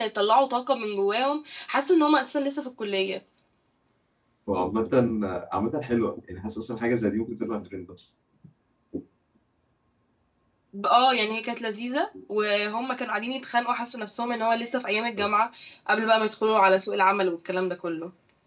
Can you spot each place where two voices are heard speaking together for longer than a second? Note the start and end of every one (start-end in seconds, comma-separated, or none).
none